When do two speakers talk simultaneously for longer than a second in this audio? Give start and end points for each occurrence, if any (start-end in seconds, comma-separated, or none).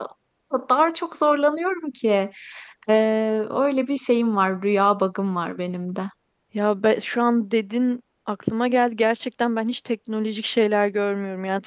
none